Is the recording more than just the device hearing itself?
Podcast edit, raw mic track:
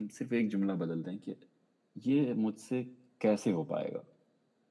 Yes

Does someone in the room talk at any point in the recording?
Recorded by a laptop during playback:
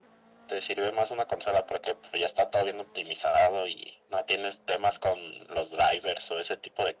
No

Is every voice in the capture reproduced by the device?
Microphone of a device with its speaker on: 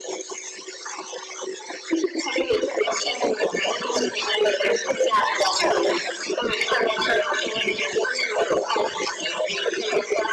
Yes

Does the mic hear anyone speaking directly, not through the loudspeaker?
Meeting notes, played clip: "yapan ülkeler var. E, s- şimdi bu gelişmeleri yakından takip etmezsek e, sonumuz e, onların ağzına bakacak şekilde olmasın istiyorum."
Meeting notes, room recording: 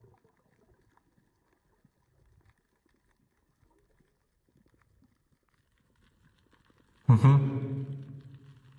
Yes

